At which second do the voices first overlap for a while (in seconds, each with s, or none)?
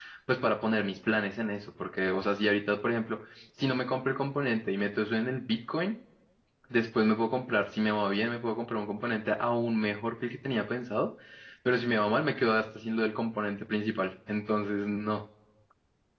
none